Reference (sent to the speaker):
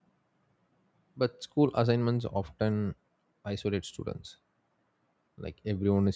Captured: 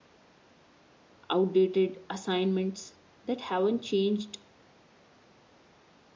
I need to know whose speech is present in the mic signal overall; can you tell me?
user only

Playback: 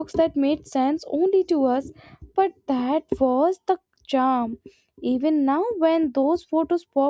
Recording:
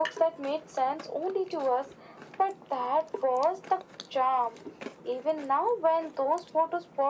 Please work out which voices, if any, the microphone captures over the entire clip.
echo only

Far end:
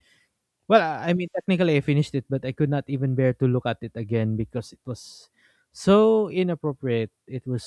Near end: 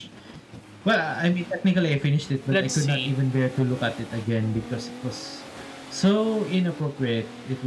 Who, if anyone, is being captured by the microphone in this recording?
both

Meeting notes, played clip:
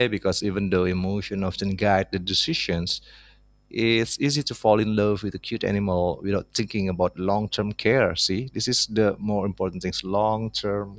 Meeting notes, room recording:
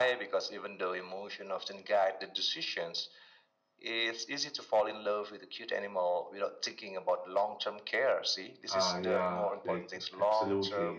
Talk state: both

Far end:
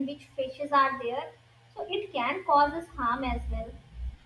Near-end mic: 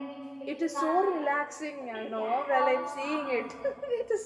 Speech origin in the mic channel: both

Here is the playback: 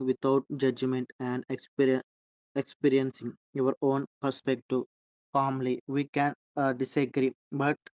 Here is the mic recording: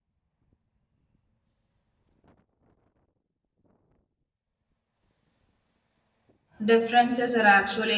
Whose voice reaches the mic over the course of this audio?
user only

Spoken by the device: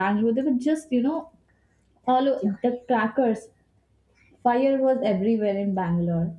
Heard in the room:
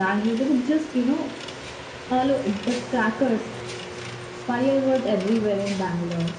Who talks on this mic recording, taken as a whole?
echo only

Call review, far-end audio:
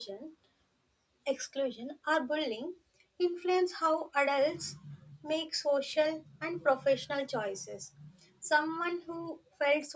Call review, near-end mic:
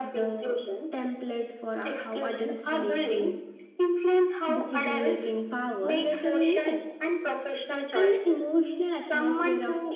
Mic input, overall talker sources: both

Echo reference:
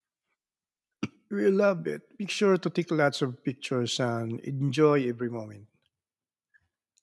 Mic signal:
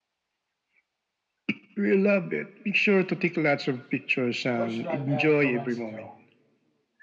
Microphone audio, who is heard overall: both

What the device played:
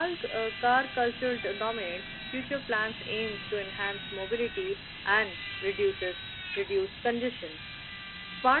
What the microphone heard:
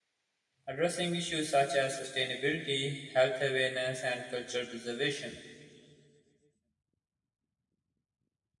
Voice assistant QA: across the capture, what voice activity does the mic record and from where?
user only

